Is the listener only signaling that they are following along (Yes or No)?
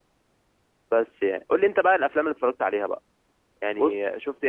Yes